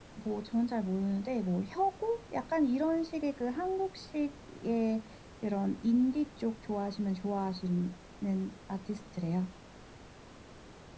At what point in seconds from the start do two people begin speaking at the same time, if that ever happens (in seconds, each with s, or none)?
none